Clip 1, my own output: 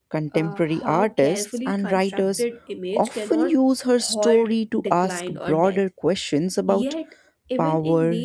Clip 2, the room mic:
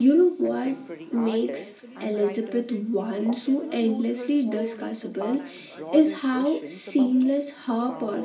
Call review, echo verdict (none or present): present